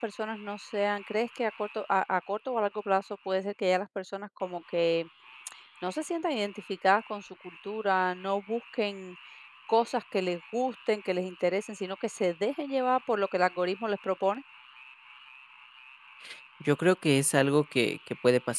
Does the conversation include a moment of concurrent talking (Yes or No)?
No